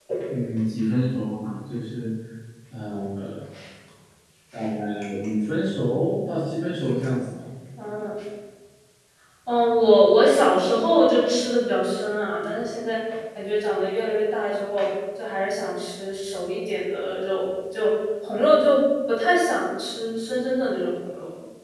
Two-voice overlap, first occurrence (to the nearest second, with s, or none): none